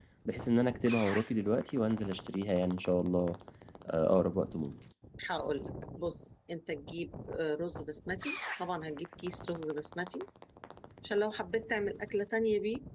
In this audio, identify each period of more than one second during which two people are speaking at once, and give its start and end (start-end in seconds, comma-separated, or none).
none